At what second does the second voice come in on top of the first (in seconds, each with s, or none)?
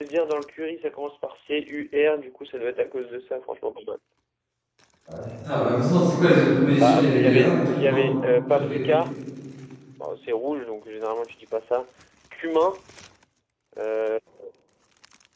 6.8 s